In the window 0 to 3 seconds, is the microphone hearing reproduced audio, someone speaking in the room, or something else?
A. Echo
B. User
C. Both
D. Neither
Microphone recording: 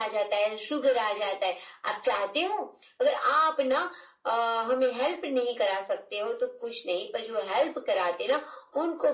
A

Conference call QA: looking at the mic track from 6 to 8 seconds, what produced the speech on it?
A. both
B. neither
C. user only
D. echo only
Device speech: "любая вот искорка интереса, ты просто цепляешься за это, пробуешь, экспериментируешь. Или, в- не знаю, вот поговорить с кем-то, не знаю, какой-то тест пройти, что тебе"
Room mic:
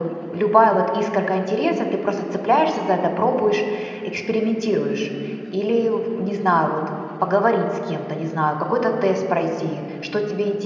D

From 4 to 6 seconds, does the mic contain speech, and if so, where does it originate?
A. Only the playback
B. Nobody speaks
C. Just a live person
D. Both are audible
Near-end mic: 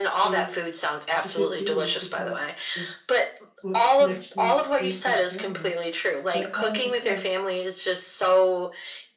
D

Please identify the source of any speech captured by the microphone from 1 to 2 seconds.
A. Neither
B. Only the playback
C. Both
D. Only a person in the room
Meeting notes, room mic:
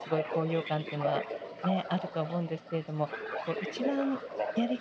C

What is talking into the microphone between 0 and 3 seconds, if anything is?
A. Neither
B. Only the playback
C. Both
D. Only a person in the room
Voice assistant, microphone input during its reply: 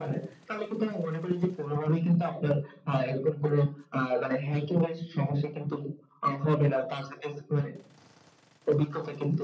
B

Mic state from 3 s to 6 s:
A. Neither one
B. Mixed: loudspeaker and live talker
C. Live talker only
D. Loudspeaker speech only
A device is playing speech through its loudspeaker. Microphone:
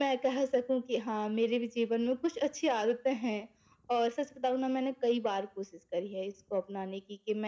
D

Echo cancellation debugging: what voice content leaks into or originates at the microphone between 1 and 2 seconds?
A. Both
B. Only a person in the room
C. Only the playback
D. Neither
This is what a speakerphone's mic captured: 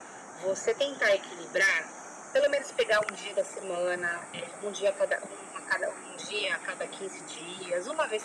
C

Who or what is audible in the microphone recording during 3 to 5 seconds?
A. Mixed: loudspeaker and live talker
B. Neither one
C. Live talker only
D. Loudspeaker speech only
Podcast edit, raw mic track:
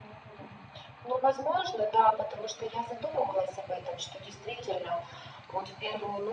D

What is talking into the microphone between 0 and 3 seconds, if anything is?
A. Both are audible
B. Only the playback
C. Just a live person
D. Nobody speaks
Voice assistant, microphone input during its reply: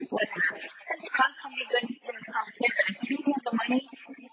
B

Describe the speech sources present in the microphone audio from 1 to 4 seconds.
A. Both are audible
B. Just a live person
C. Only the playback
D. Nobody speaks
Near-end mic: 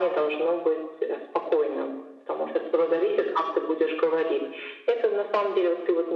C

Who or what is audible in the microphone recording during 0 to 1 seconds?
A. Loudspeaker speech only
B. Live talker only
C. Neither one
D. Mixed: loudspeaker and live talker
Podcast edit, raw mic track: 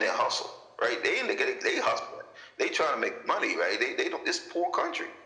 A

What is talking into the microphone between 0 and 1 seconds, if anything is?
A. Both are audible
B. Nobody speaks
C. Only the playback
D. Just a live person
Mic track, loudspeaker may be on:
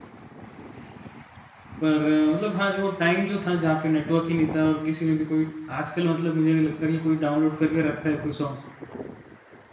B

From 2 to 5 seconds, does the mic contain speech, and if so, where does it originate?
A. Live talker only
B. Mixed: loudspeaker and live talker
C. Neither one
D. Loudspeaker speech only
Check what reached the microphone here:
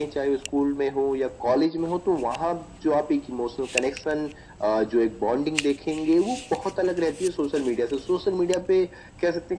D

